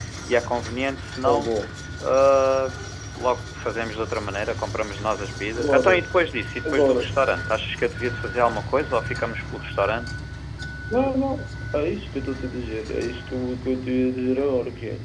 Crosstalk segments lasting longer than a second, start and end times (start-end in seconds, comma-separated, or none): none